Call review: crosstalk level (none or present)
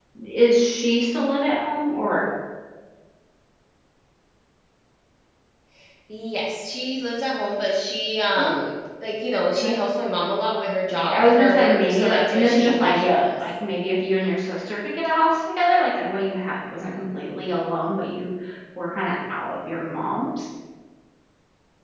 present